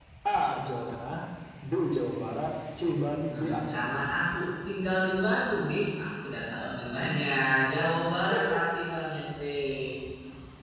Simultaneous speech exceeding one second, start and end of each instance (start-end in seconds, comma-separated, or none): none